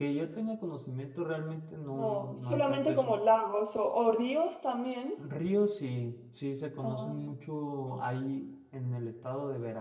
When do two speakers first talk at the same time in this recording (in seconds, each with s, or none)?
1.9 s